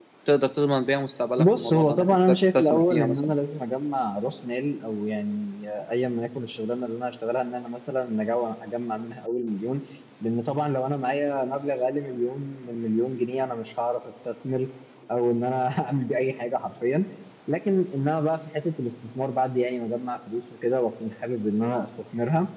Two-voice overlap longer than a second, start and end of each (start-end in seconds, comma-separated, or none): 1.4-3.3